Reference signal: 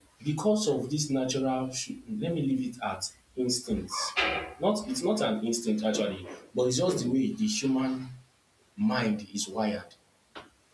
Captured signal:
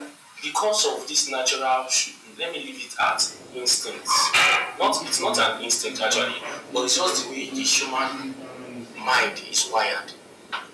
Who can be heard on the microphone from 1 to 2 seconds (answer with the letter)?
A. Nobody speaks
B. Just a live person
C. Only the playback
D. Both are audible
C